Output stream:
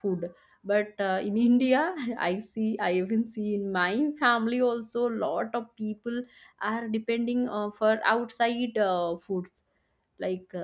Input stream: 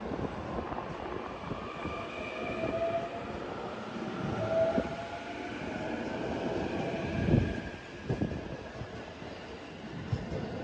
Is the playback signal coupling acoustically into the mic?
No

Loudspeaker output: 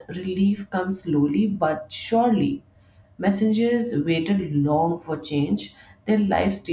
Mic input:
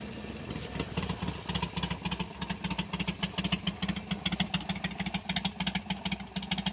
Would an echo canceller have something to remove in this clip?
No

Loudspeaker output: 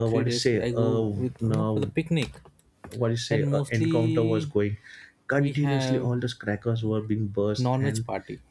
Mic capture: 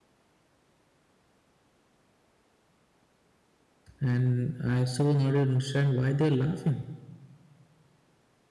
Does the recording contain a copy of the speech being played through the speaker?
No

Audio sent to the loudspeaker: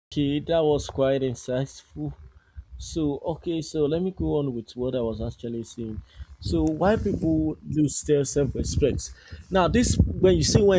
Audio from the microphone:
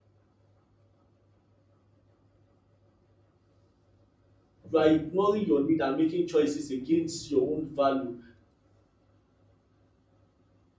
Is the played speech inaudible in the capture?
Yes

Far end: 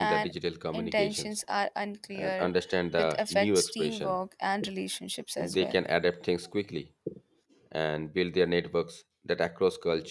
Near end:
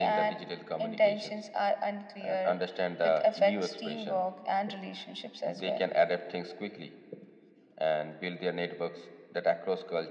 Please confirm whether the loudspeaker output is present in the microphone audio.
Yes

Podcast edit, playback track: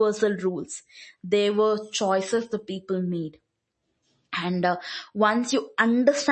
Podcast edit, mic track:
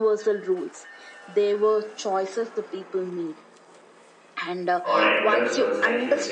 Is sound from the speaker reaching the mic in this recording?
Yes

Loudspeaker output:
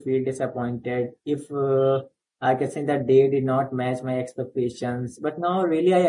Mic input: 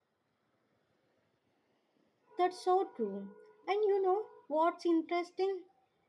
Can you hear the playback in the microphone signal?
No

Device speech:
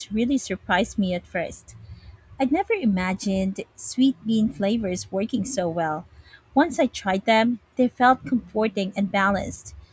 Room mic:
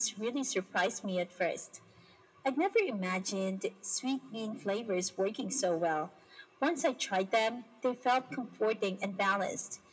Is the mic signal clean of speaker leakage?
No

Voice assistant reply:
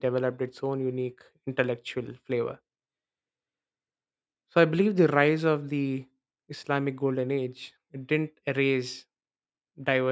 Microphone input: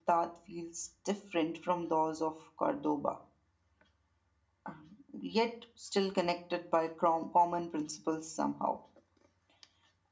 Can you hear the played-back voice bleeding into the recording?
No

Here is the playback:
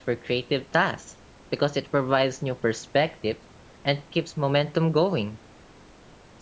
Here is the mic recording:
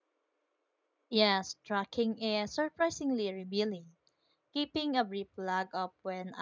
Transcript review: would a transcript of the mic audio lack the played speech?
Yes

